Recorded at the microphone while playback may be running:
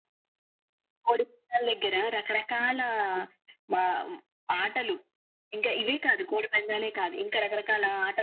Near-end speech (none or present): none